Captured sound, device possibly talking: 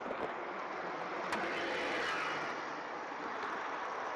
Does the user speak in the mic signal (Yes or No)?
No